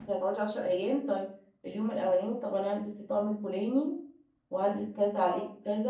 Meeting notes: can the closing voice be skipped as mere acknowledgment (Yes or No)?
Yes